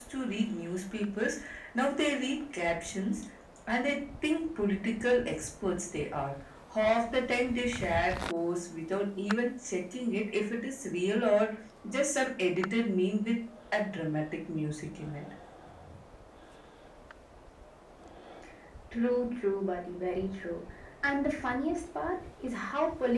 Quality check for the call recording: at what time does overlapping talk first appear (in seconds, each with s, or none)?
none